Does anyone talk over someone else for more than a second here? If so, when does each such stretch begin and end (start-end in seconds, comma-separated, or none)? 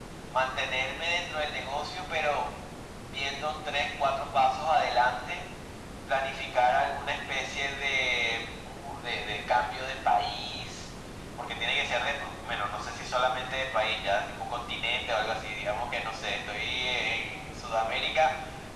none